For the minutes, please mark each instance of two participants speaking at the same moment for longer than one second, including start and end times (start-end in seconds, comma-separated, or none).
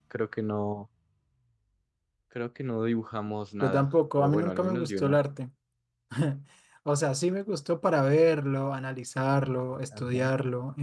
3.6-5.2